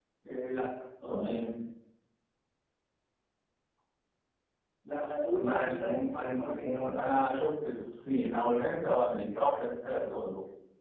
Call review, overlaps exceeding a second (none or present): present